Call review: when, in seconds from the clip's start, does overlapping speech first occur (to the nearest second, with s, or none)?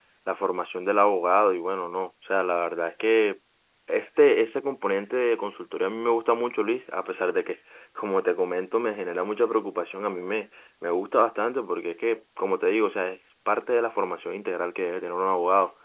none